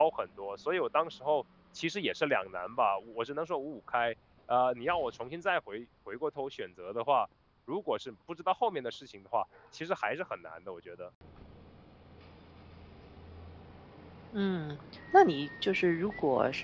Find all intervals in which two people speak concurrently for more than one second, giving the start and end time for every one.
none

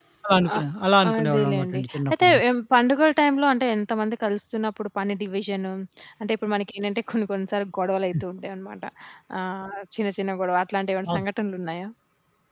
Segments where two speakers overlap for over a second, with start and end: 1.1-2.3

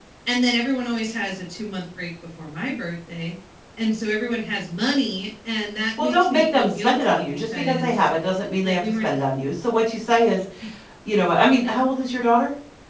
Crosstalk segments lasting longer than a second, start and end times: 6.0-8.1

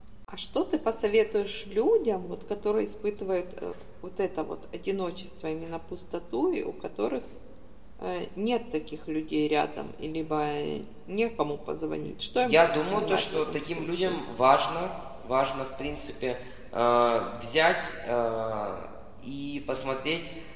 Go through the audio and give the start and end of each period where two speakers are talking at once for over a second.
12.4-14.2

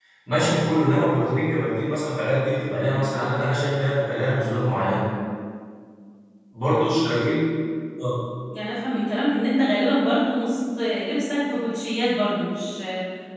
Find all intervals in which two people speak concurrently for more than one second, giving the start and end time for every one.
none

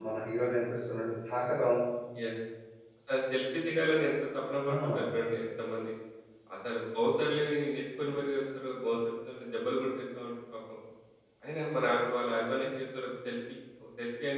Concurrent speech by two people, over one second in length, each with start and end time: none

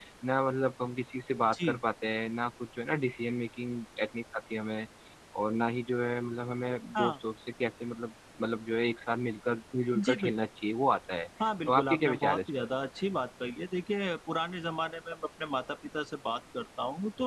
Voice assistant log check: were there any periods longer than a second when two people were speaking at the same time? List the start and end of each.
11.4-12.7

